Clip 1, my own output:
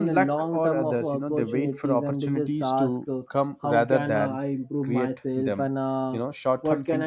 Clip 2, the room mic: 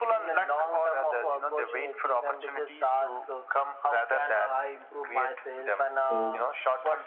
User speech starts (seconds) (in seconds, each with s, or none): 6.0 s